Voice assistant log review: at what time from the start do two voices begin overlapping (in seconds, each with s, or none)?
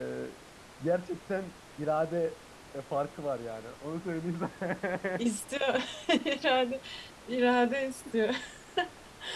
none